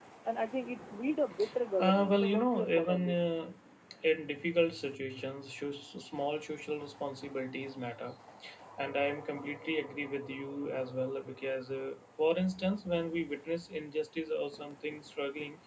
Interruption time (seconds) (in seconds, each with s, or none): 1.8 s